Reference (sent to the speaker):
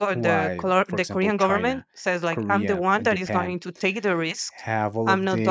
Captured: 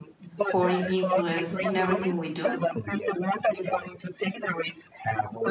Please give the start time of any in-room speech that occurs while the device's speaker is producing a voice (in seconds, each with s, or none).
0.4 s